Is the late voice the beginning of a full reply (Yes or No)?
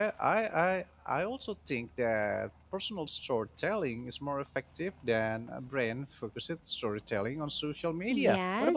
Yes